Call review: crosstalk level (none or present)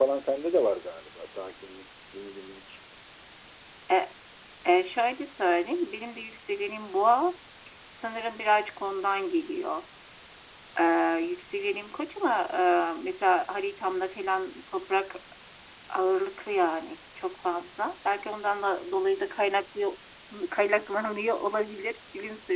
none